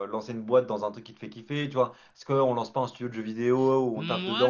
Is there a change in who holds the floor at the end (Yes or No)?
Yes